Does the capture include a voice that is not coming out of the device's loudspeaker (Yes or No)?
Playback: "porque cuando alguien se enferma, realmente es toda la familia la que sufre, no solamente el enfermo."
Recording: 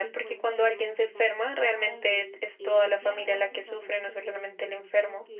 Yes